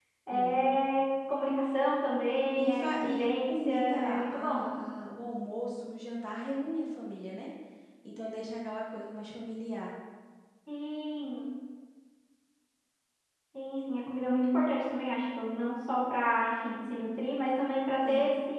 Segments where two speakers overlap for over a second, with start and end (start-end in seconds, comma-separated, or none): 2.6-4.7